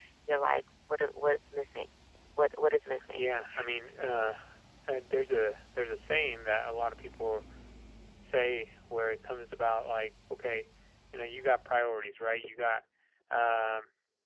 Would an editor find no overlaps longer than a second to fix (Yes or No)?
Yes